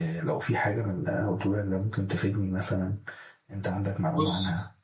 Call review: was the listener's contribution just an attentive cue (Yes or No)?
No